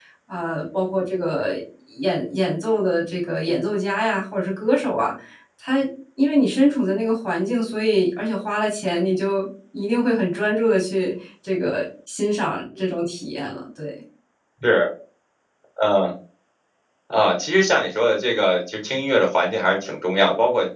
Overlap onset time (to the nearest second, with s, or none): none